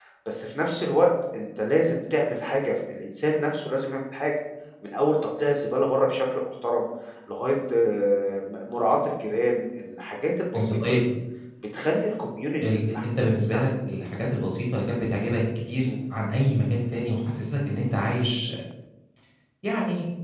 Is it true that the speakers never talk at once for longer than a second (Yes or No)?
Yes